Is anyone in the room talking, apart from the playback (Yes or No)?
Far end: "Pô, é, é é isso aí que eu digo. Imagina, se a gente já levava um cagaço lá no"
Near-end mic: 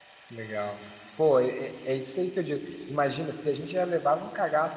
No